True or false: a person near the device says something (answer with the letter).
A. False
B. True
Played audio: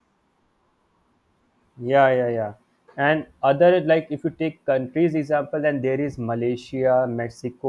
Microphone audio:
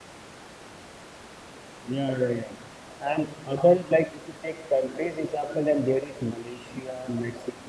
A